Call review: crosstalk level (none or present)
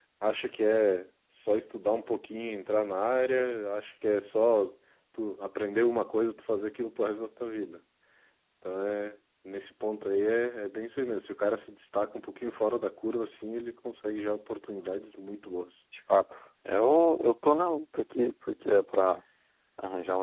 none